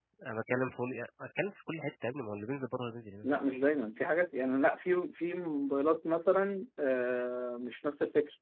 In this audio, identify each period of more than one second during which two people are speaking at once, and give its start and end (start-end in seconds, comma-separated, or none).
none